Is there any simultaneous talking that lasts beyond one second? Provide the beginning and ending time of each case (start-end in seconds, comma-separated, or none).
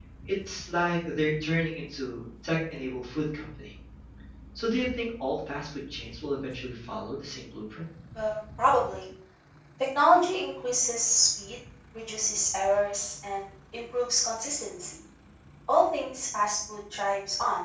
none